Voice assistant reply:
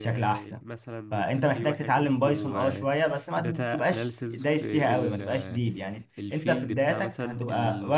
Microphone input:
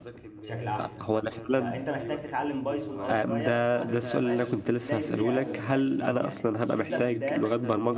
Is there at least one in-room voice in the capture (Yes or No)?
Yes